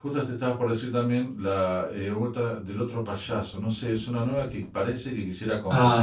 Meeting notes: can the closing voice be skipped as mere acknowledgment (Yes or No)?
No